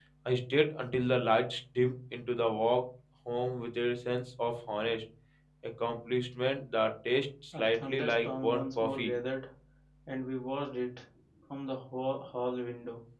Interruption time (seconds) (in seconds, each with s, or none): 7.5 s